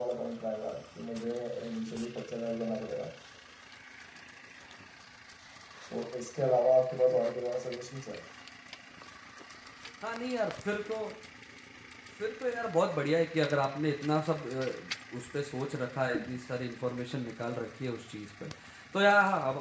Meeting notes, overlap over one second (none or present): none